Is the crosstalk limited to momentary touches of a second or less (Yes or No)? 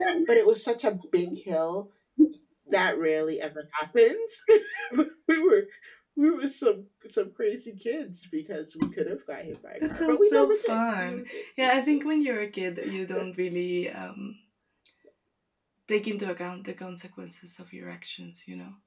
No